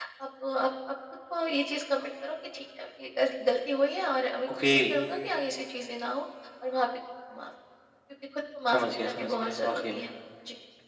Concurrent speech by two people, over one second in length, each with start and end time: 8.7-10.1

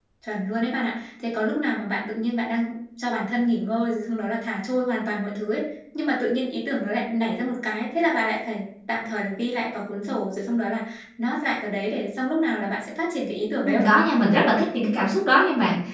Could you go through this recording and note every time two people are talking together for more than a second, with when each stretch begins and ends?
none

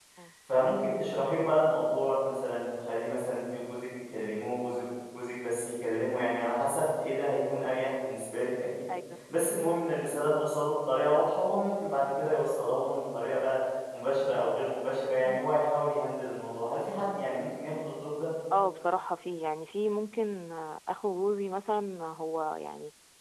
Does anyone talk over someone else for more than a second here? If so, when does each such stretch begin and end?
none

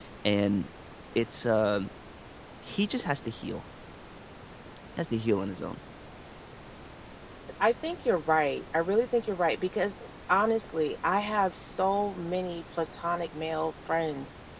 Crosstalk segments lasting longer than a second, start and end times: none

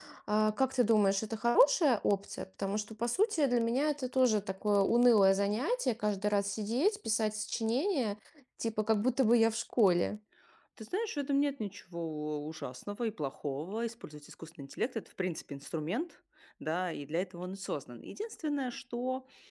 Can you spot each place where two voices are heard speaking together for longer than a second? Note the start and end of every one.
none

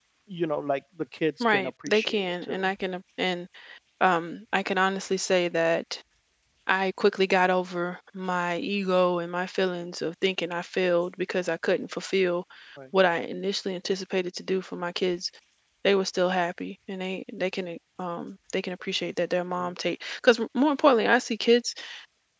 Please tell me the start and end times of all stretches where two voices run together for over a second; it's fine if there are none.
1.4-2.7

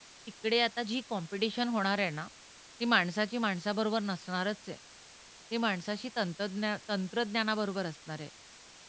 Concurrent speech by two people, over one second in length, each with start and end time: none

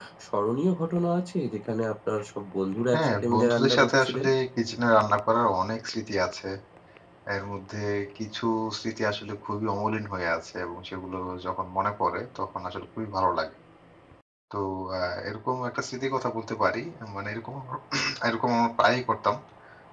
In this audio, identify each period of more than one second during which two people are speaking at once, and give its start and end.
2.9-4.2

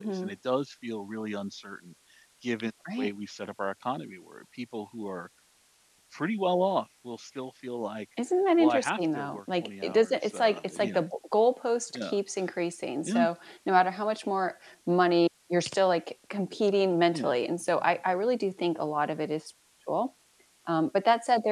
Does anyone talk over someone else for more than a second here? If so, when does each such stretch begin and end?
8.6-11.1

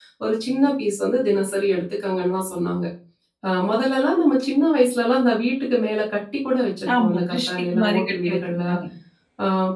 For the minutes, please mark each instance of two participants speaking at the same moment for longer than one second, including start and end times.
7.0-8.6

